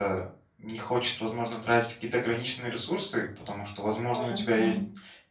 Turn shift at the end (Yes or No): No